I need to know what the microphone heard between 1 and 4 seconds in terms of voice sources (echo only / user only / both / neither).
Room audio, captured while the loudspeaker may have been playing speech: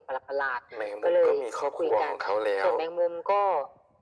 echo only